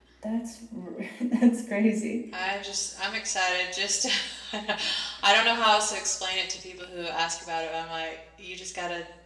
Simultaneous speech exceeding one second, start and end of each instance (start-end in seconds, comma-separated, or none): none